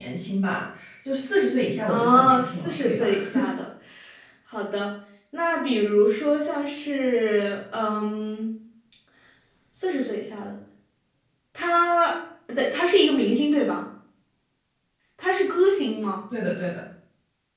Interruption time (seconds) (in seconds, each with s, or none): 1.9 s